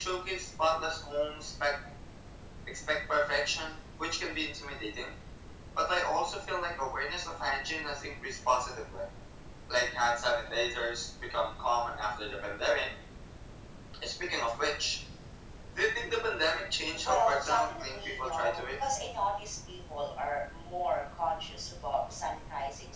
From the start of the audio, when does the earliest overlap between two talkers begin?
16.9 s

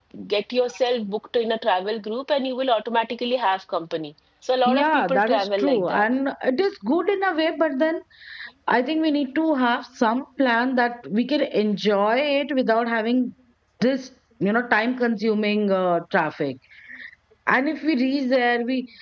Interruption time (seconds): 4.6 s

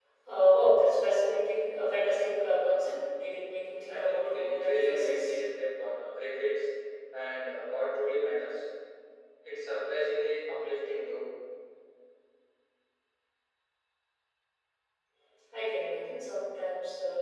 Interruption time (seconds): 3.9 s

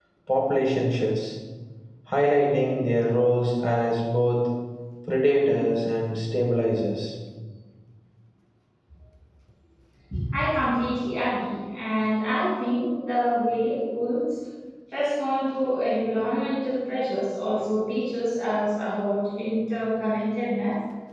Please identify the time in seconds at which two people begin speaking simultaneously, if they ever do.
none

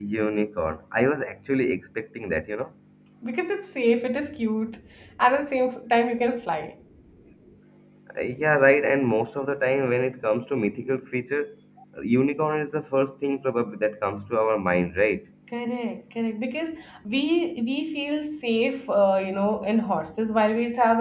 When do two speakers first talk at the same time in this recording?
none

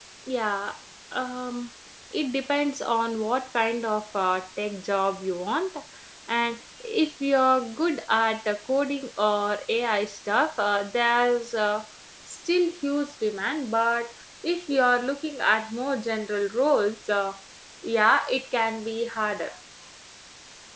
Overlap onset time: none

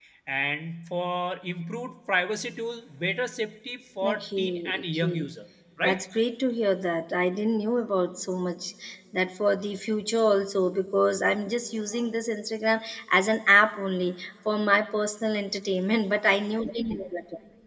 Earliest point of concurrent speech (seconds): 4.0 s

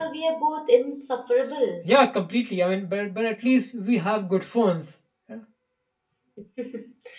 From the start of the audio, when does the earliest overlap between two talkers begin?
none

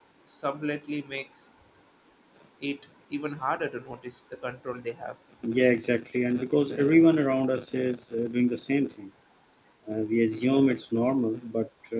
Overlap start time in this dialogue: none

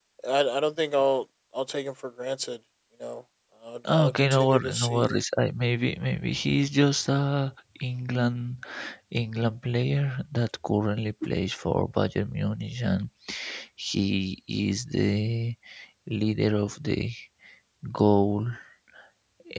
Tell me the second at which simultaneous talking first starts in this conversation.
3.9 s

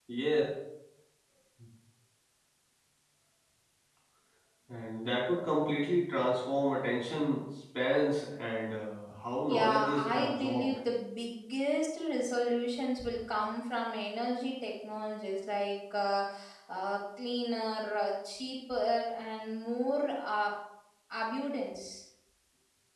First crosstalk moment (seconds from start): 9.5 s

